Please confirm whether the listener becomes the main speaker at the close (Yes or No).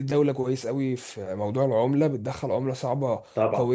No